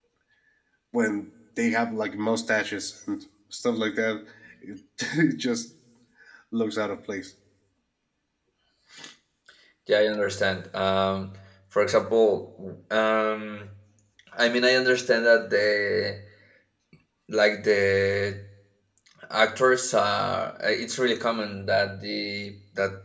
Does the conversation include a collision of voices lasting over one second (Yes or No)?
No